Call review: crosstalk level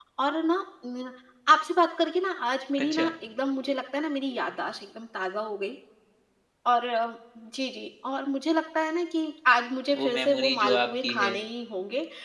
present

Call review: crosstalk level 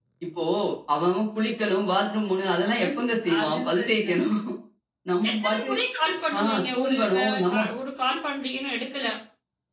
present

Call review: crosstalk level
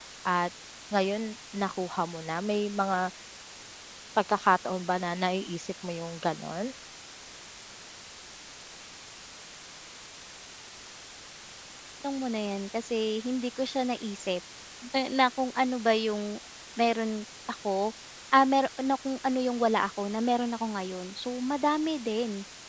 none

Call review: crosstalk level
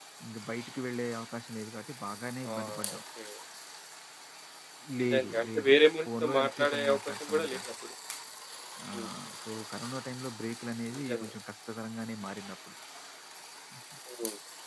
present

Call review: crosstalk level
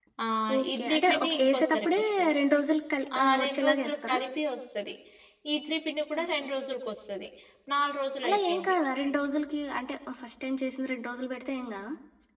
present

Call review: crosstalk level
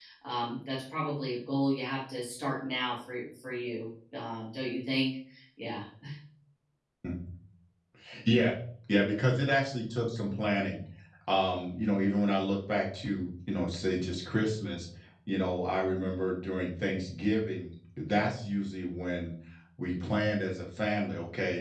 none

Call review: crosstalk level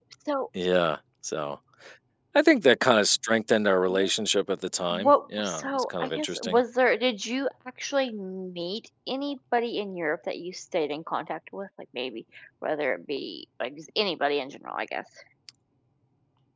present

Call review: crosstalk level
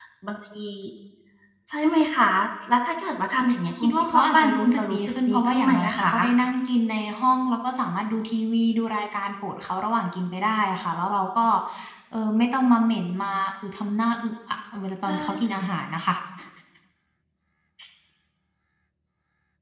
present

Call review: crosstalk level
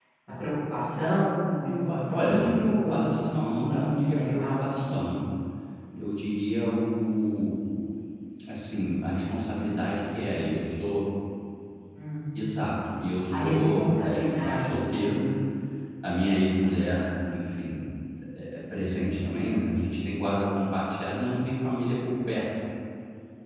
present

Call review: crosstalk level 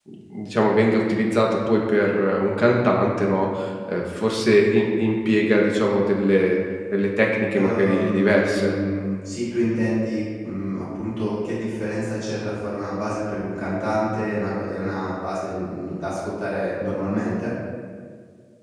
present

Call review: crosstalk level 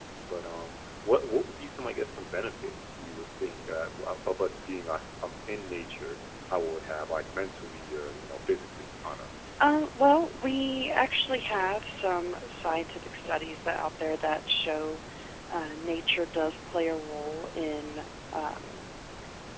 none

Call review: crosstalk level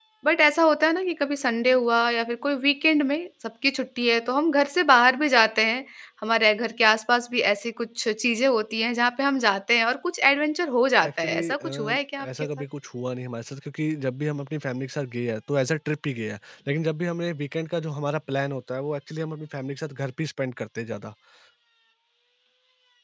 present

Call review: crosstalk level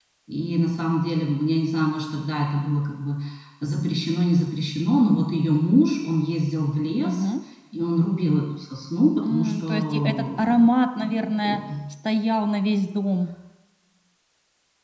present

